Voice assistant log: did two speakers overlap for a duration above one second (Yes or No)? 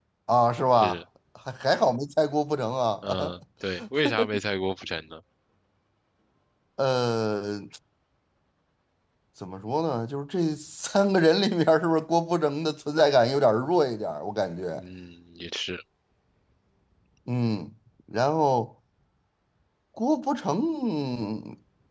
No